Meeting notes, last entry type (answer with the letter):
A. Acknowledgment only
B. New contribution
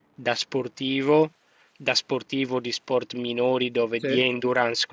A